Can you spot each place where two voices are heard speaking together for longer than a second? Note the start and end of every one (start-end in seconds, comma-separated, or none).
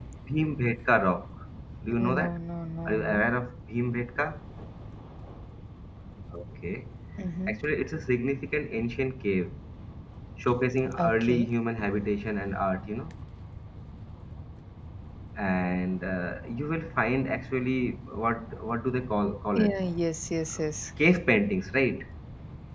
none